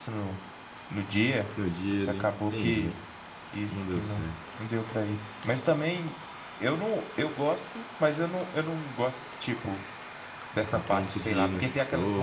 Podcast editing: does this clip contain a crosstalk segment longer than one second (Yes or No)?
Yes